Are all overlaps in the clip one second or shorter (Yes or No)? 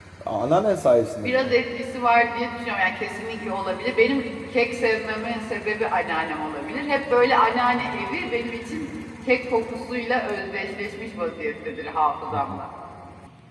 Yes